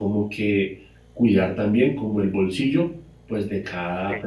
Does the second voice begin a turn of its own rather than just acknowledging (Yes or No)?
No